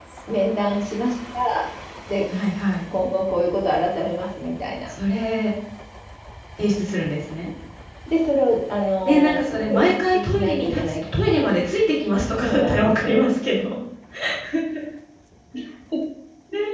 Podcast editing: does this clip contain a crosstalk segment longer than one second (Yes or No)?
Yes